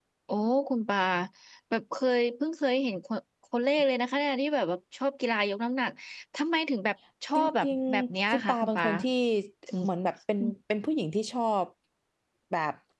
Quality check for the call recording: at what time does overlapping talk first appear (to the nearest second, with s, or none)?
7 s